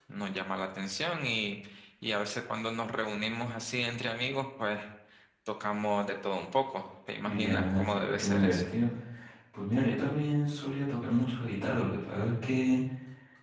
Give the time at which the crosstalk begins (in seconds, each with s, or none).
7.2 s